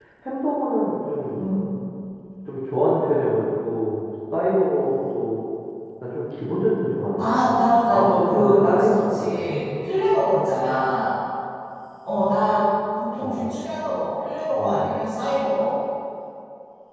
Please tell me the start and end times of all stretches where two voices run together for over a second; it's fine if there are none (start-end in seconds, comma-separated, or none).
7.9-9.4